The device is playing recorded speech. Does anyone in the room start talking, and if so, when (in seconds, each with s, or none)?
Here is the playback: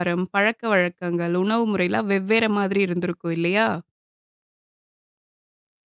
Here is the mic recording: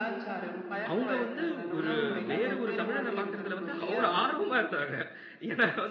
0.9 s